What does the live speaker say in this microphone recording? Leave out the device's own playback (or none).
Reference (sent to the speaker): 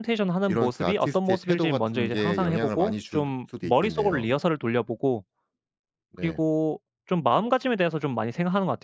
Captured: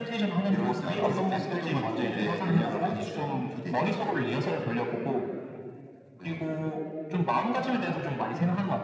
none